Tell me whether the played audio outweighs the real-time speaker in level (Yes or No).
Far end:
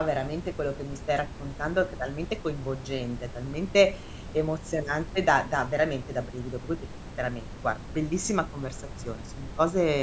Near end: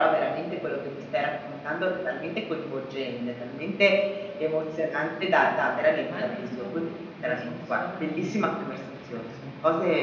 Yes